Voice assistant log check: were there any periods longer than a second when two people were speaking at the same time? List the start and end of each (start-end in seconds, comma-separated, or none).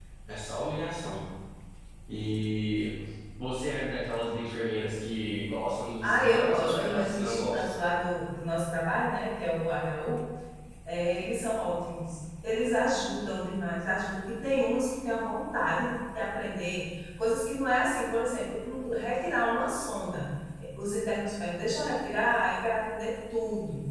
6.0-7.8